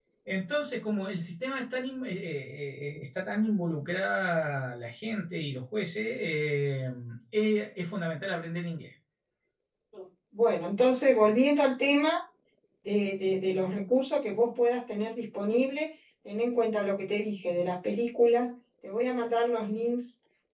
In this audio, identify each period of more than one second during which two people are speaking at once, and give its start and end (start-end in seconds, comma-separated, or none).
none